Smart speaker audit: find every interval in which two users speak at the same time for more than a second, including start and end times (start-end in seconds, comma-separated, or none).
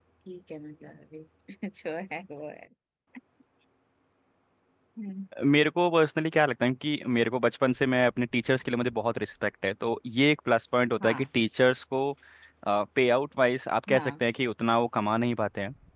none